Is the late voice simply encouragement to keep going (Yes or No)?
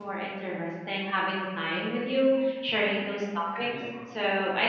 Yes